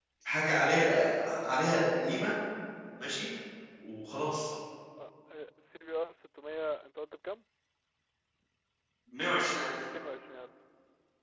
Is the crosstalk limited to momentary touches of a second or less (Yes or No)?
Yes